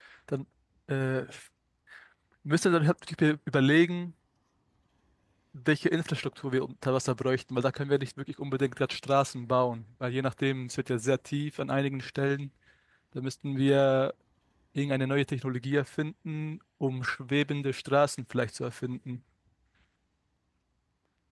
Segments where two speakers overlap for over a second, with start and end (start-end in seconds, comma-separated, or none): none